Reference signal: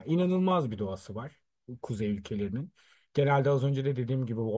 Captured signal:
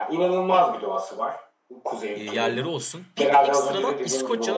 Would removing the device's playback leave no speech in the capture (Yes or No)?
No